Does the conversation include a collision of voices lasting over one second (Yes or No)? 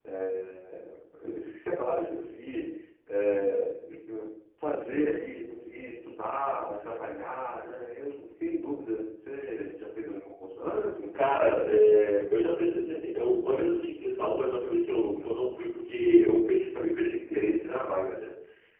No